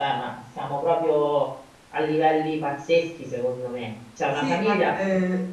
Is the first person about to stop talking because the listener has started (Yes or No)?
Yes